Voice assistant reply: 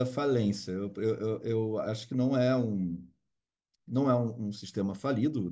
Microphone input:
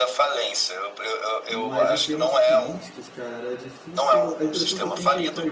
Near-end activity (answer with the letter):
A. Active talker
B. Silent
A